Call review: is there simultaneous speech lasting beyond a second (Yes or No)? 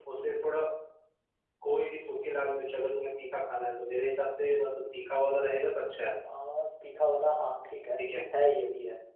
No